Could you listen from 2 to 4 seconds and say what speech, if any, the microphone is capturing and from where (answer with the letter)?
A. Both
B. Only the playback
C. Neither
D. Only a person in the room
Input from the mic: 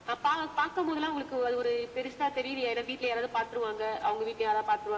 B